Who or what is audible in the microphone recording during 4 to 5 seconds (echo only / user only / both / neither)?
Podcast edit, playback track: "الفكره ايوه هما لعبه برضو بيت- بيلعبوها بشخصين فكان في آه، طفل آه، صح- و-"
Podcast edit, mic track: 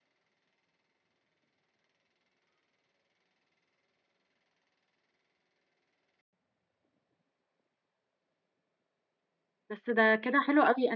neither